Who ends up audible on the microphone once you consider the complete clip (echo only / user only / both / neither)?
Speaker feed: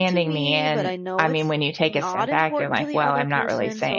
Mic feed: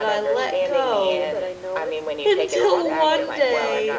both